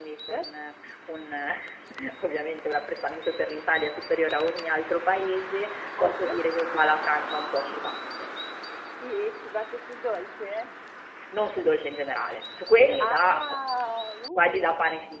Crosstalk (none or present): present